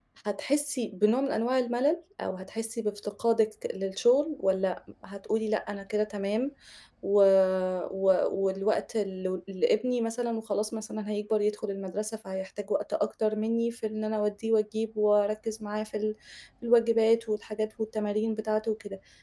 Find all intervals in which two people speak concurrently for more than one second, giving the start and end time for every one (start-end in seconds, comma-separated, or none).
none